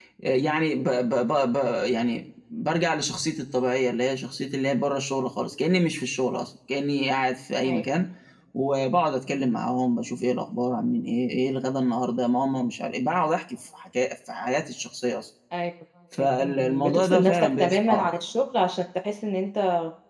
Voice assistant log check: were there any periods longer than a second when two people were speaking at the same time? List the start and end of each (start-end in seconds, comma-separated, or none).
16.4-18.1